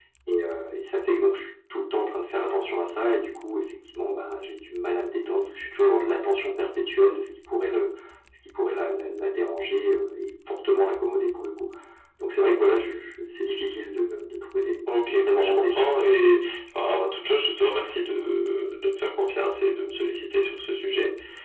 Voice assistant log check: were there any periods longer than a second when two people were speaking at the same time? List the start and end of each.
14.9-16.3

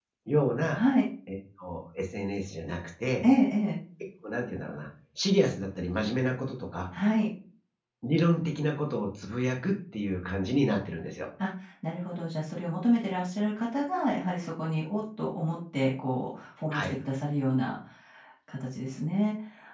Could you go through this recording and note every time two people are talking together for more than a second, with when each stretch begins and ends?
none

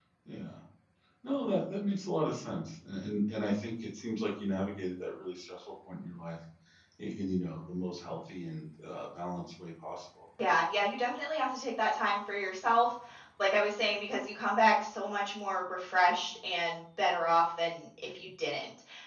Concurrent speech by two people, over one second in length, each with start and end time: none

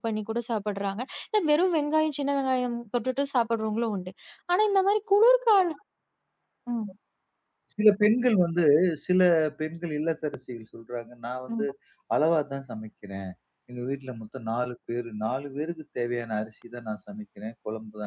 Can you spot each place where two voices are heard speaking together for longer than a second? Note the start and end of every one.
none

